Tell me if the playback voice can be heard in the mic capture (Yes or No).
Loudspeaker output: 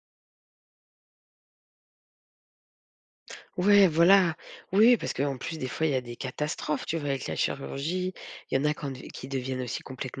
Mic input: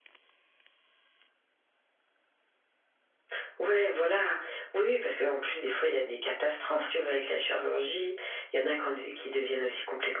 Yes